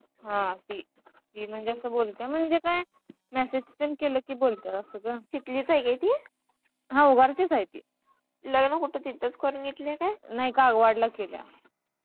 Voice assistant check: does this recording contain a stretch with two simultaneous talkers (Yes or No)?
No